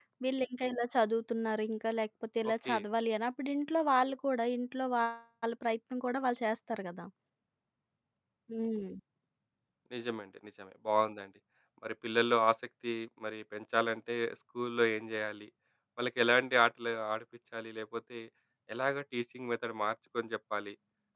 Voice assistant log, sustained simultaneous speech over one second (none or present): none